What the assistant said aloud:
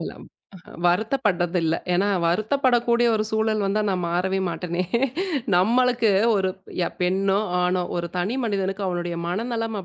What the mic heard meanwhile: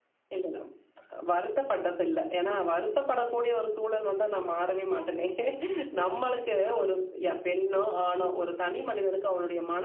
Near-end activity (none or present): none